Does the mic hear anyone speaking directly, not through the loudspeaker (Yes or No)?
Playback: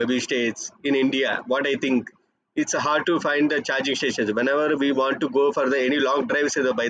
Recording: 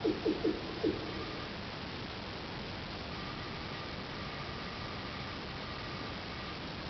No